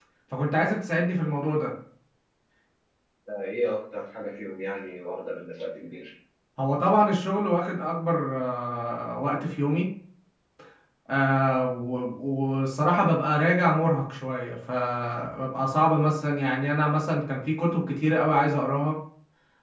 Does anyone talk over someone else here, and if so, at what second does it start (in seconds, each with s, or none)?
none